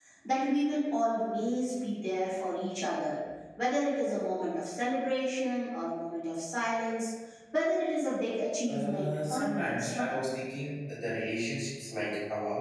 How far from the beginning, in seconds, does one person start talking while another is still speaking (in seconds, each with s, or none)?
8.6 s